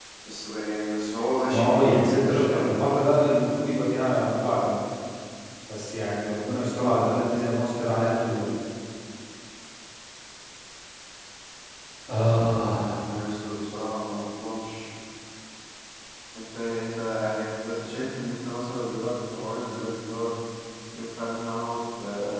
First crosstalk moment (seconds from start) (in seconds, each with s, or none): 1.5 s